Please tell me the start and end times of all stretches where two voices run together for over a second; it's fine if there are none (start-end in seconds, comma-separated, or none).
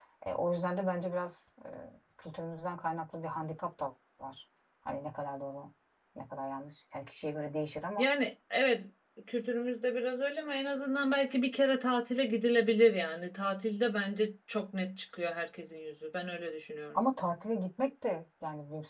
none